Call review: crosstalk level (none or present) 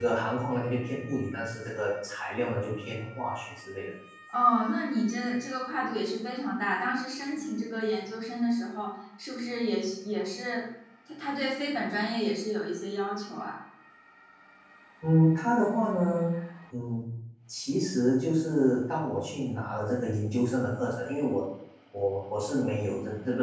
none